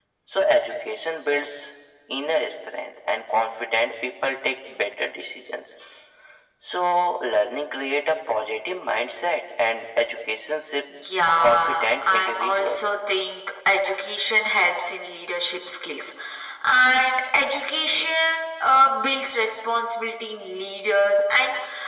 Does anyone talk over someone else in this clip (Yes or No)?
Yes